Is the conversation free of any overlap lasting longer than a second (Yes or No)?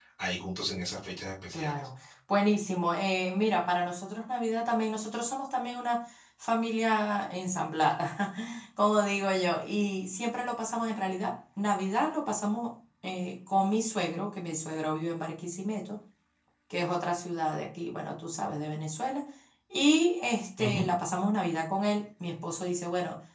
Yes